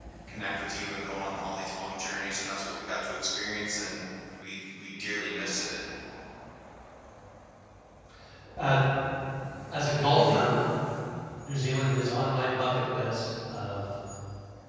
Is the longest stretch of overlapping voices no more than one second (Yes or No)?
Yes